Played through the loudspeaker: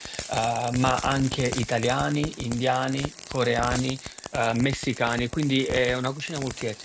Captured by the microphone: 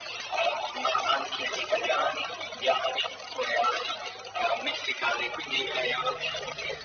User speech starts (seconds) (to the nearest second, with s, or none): none